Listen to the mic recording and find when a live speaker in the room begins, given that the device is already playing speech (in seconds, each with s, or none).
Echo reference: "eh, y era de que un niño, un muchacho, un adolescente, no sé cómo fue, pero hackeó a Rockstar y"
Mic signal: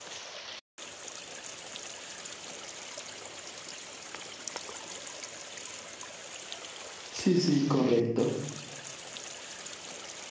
7.1 s